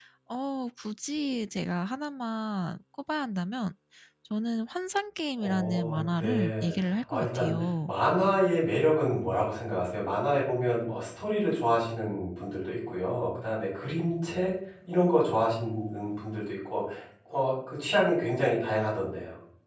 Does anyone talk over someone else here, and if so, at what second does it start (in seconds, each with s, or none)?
5.4 s